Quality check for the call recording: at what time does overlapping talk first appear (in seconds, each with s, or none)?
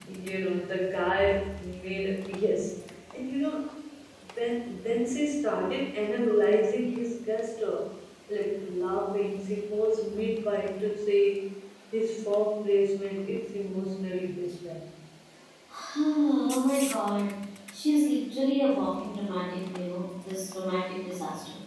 none